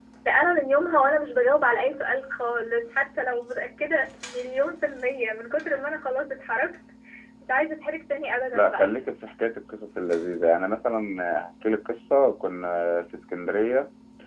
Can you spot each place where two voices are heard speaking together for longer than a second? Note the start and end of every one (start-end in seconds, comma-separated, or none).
none